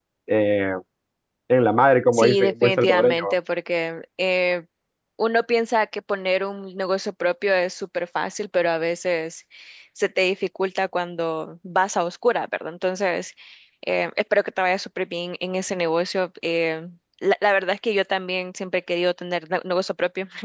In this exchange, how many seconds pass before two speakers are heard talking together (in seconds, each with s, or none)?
2.1 s